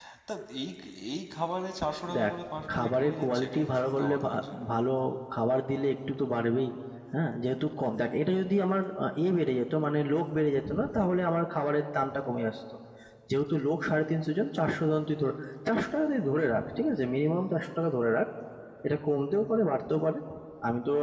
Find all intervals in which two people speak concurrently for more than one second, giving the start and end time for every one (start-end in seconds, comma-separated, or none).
2.7-4.3